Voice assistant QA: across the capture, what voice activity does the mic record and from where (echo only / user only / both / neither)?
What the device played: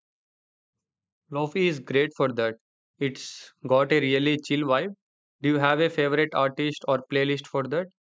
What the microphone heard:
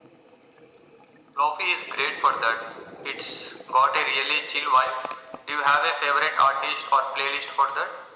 echo only